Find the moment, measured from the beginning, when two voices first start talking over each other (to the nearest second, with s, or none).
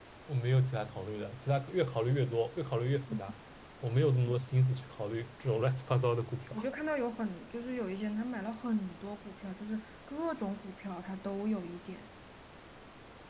none